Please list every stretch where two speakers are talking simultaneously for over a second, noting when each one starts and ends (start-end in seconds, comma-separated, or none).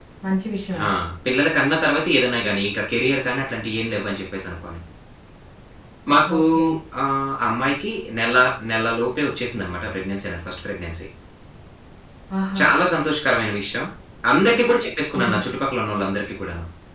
none